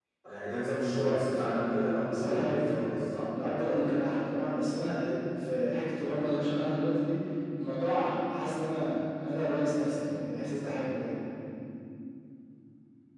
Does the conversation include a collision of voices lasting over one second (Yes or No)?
Yes